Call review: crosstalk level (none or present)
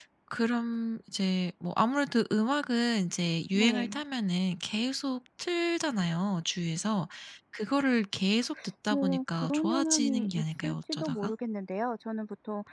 present